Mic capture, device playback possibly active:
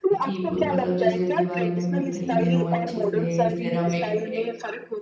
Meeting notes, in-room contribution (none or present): present